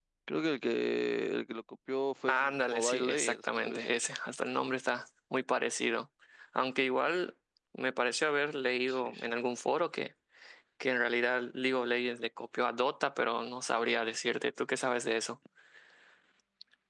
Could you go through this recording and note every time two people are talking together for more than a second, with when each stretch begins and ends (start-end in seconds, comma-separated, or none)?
2.3-3.9